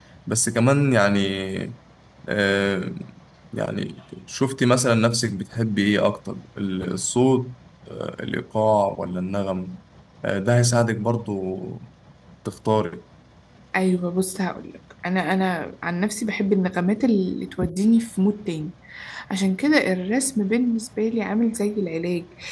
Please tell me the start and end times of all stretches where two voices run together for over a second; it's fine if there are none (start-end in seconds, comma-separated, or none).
none